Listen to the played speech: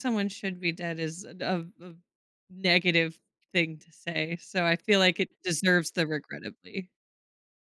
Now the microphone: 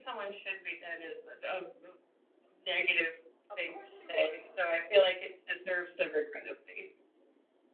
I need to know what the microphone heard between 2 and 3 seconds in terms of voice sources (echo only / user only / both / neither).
echo only